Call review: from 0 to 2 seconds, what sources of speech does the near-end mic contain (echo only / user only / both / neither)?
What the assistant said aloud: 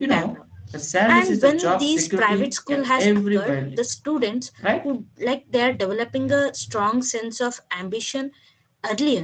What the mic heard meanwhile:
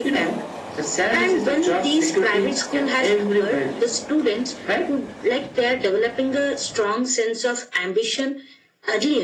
echo only